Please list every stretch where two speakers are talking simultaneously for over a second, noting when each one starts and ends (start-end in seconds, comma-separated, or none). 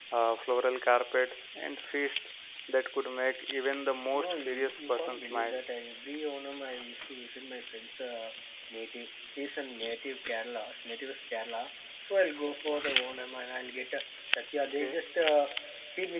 4.1-5.6